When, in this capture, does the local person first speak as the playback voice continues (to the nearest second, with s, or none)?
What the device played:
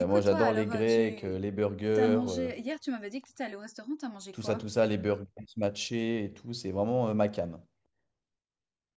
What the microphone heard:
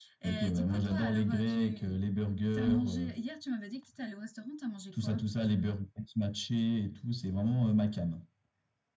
none